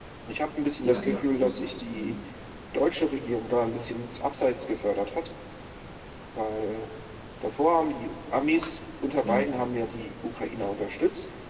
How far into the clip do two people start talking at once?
0.8 s

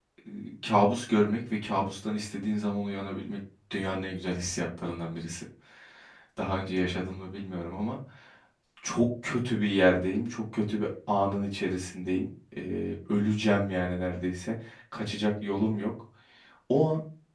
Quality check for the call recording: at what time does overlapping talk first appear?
none

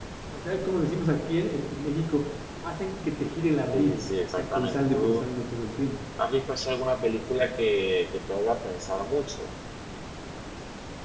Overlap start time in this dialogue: 3.7 s

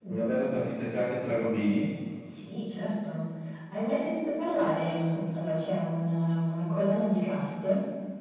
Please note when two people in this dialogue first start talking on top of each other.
none

